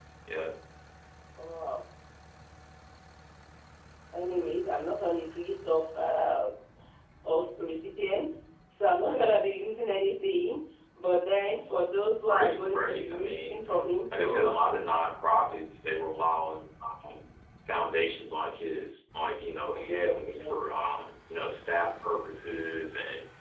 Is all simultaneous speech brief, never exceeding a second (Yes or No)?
No